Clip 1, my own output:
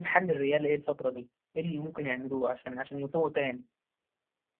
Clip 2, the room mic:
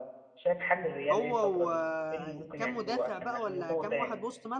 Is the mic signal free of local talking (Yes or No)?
No